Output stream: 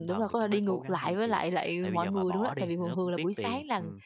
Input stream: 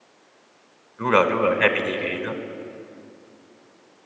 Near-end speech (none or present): present